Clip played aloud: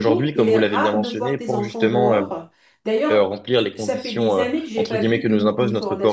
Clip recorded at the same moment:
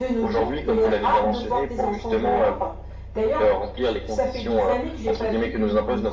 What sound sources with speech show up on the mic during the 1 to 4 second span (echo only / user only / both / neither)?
echo only